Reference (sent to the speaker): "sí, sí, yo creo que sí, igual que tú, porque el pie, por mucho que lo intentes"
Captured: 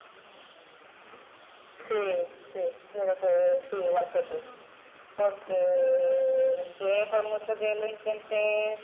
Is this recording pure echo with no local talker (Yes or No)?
Yes